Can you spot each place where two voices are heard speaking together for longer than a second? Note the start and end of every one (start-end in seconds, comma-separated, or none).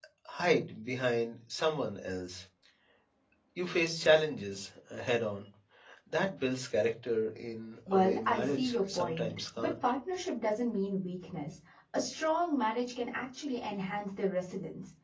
7.9-9.7